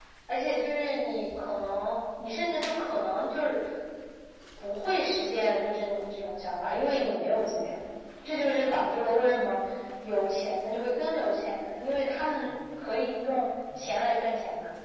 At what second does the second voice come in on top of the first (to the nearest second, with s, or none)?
none